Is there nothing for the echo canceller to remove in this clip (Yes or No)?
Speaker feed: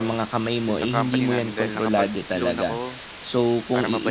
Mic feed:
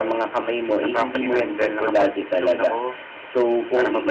No